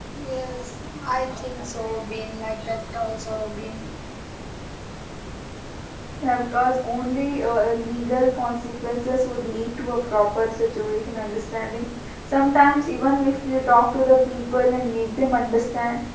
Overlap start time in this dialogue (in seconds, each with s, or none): none